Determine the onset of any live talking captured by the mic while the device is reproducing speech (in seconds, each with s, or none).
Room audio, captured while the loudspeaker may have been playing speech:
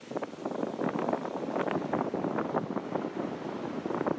none